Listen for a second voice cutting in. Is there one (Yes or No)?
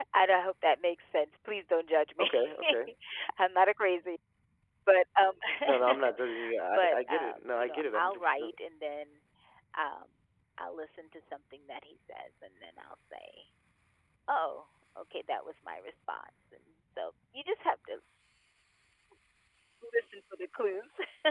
Yes